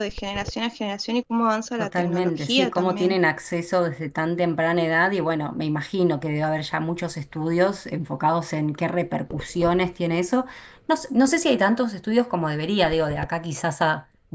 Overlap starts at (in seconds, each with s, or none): 1.8 s